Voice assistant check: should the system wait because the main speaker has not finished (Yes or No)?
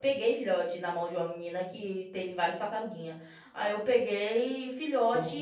No